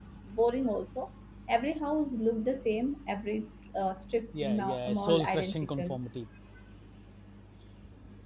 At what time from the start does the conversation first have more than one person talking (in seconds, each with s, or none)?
4.3 s